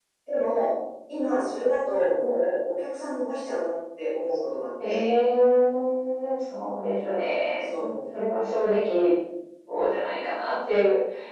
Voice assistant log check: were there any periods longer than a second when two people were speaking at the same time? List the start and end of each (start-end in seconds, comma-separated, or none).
none